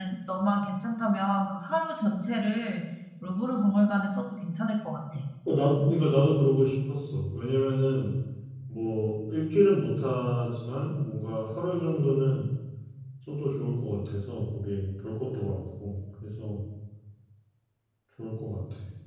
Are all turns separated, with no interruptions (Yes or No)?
Yes